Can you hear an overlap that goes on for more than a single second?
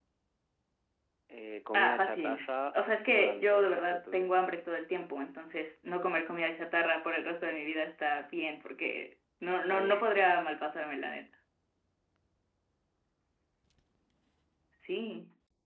Yes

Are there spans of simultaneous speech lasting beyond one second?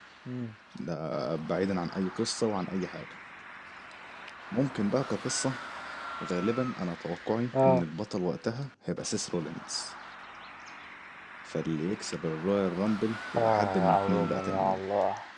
Yes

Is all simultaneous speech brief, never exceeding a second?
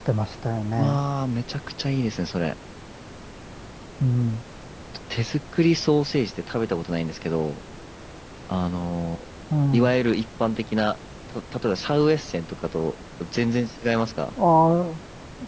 Yes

